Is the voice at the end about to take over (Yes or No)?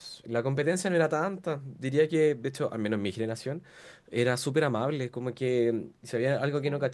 No